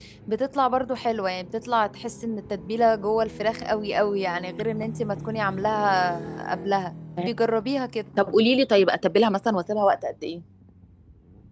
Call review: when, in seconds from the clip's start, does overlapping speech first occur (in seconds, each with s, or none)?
none